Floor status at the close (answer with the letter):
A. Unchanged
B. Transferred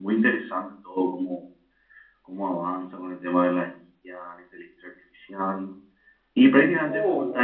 A